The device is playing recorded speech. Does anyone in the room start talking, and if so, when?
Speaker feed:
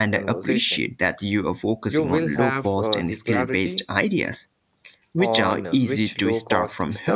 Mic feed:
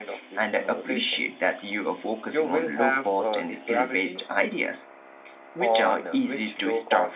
none

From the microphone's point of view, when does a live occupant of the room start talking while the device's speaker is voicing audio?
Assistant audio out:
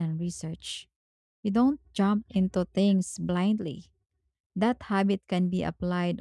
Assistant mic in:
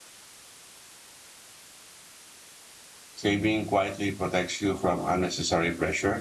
3.1 s

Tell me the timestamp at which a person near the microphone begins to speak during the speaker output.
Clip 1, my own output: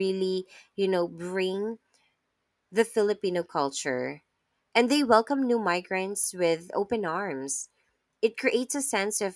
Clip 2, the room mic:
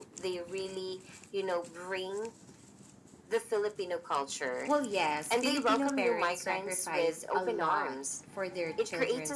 4.7 s

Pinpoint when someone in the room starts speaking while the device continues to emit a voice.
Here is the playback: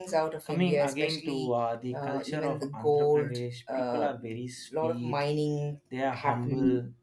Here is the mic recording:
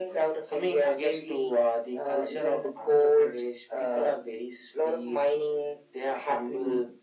none

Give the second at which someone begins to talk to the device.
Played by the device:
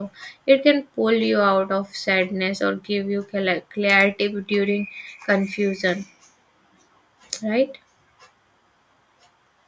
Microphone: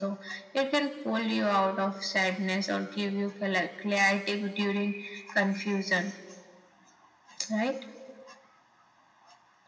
none

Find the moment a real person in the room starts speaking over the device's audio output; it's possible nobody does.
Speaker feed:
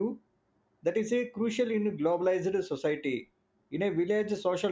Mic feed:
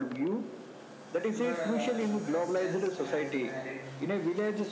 1.3 s

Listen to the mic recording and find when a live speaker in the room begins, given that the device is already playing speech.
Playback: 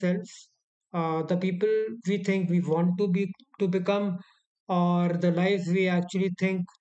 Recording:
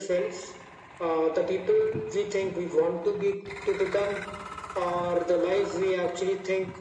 none

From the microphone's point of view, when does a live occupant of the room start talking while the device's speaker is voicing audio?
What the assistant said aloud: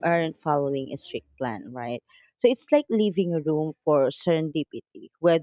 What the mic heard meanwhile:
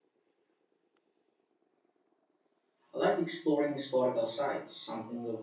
2.9 s

